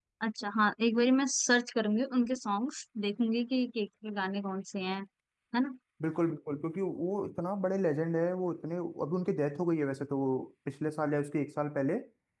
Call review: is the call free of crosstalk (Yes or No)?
Yes